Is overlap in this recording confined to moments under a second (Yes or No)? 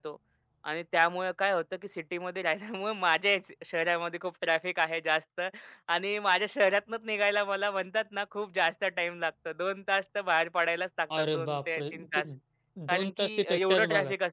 No